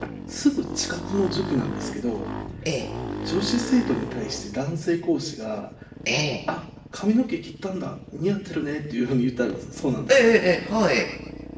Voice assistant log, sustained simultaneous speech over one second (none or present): none